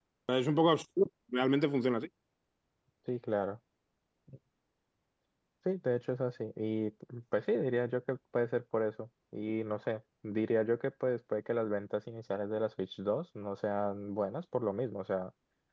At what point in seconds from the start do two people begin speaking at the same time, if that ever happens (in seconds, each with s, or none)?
none